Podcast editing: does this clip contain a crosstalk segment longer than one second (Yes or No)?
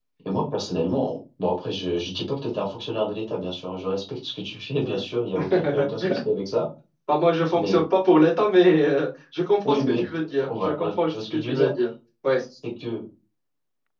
Yes